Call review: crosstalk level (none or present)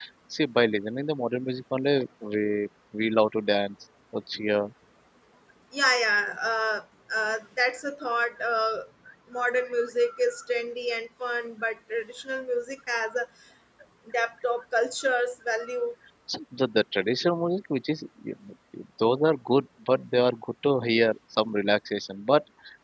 none